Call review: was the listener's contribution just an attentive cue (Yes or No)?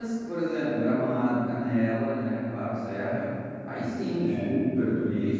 Yes